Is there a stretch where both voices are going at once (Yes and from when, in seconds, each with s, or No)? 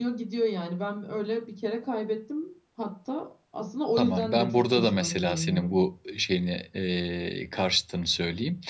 Yes, from 4.0 s